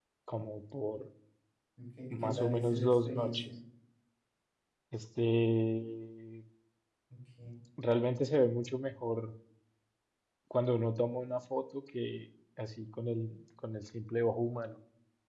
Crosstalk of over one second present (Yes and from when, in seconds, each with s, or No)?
Yes, from 2.1 s